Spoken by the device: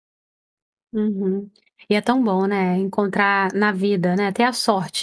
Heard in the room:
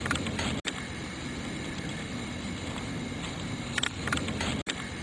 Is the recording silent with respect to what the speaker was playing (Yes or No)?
Yes